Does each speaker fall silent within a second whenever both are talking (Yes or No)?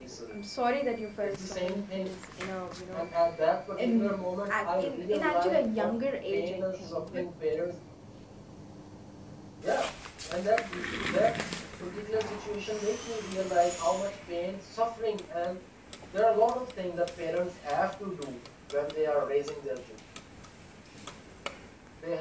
No